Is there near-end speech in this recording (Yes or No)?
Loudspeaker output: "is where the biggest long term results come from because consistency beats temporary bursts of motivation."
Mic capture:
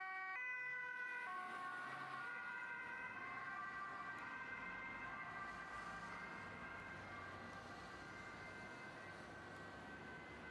No